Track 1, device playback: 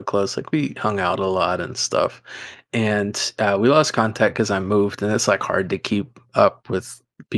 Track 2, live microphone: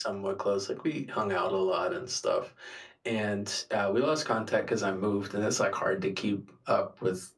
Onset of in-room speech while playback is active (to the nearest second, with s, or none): none